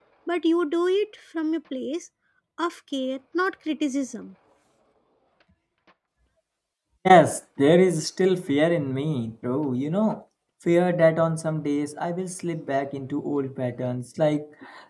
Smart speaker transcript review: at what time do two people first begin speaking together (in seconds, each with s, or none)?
none